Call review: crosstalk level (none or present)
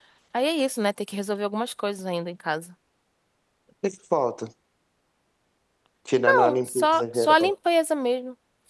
present